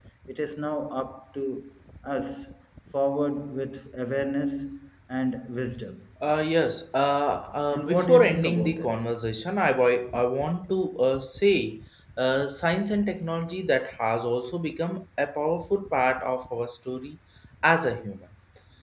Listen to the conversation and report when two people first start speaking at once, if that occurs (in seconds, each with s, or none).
7.7 s